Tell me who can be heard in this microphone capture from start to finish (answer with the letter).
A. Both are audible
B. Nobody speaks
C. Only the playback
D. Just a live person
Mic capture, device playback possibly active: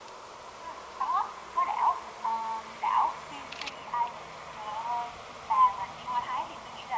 C